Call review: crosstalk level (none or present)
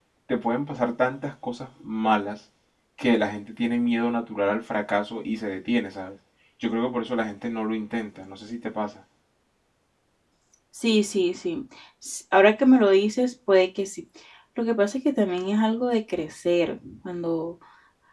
none